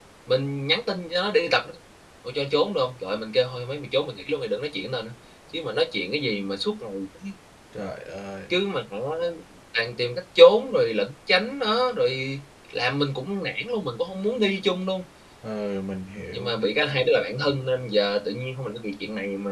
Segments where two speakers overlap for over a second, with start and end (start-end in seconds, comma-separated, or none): none